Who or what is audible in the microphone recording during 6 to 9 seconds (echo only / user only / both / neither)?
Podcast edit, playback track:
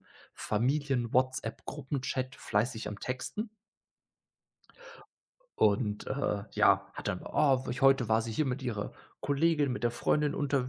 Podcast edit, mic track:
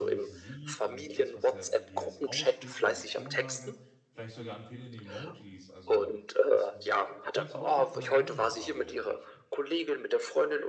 both